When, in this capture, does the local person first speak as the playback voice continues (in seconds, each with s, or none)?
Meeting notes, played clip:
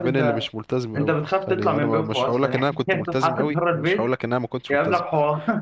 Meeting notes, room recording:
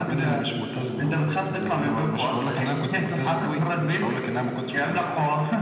none